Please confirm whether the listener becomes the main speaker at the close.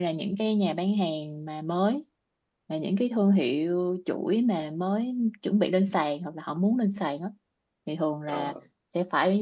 No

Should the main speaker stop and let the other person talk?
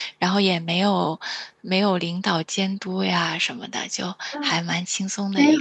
Yes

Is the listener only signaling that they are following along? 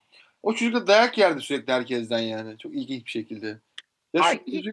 No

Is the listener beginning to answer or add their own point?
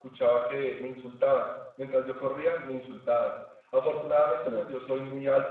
No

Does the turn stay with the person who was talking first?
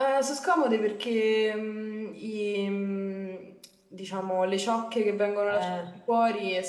Yes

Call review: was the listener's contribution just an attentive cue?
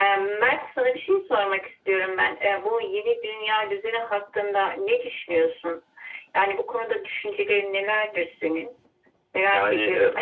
No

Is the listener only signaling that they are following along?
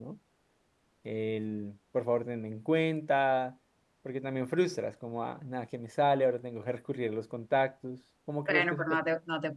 No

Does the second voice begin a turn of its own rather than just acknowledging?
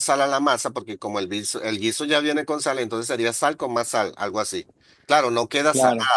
No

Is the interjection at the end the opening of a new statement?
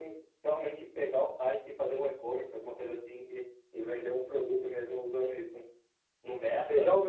Yes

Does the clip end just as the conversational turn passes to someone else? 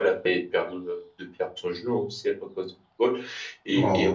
No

